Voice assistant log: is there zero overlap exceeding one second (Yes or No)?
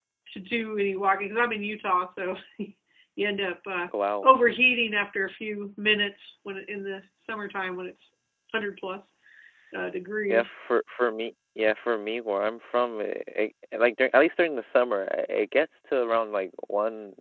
Yes